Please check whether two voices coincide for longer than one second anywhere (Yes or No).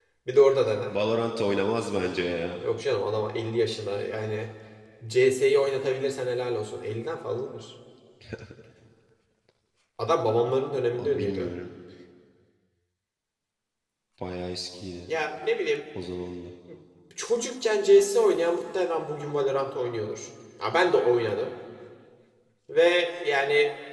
No